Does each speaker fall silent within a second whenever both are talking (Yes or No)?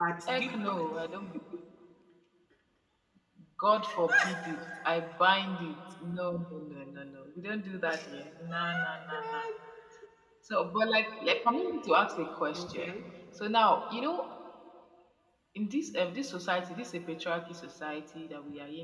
No